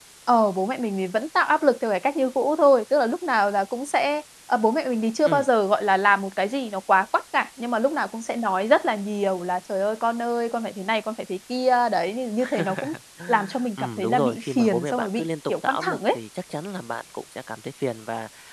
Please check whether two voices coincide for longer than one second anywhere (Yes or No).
Yes